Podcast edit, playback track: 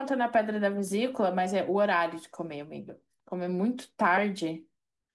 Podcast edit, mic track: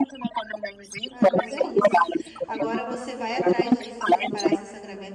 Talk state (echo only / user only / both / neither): both